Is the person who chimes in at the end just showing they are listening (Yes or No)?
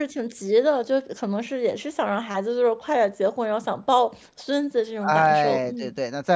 No